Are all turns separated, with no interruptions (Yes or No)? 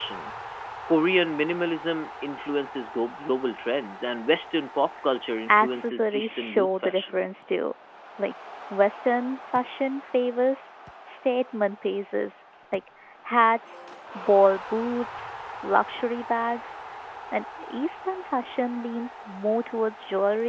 No